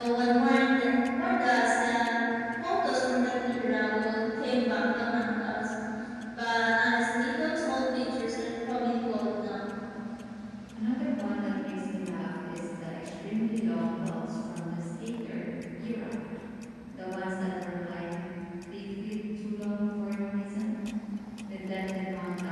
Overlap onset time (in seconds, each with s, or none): none